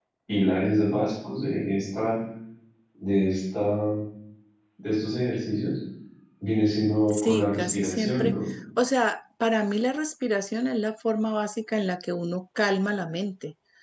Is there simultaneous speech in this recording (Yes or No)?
Yes